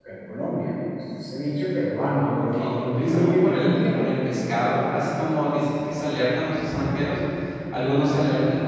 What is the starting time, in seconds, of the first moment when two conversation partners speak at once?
2.2 s

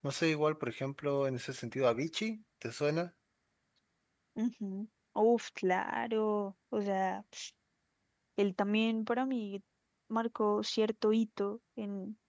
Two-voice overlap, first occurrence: none

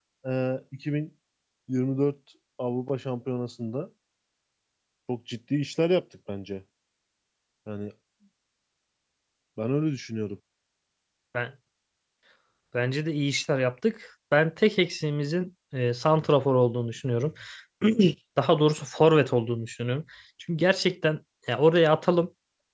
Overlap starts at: none

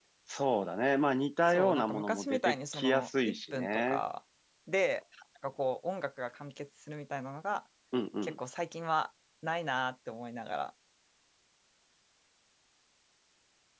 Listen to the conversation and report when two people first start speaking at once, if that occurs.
1.5 s

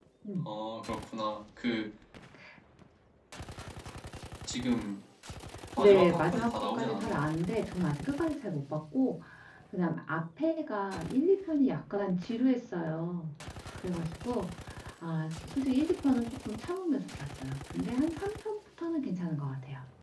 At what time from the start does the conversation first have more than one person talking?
5.8 s

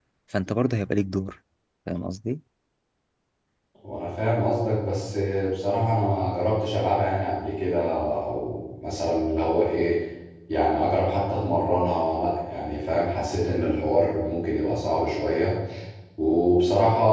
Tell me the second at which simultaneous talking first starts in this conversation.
none

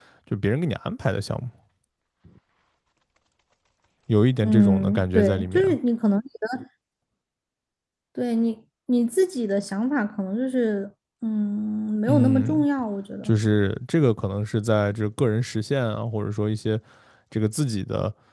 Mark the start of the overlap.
4.4 s

